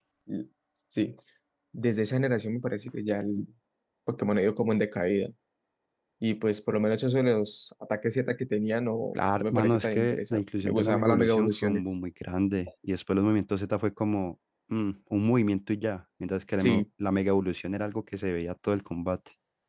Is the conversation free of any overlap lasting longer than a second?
No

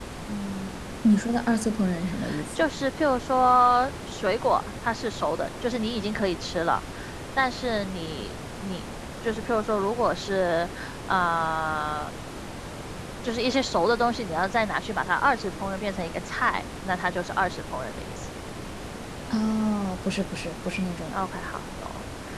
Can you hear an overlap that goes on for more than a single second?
No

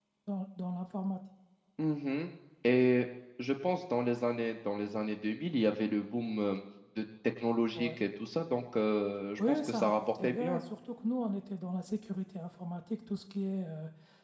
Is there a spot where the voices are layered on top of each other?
Yes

